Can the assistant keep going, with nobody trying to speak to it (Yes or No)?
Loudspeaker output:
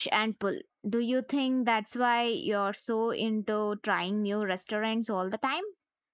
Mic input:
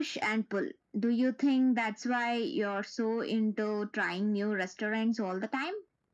Yes